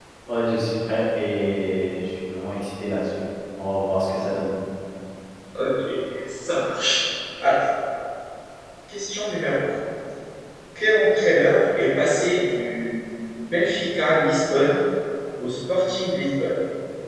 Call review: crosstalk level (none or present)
none